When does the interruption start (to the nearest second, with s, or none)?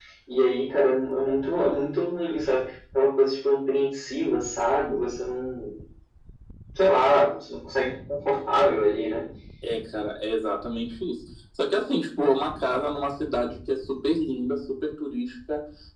none